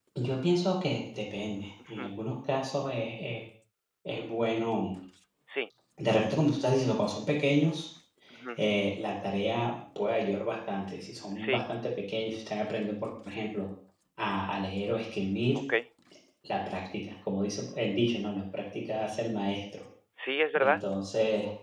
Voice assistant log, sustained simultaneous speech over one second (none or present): none